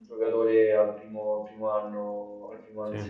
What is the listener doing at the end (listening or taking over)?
listening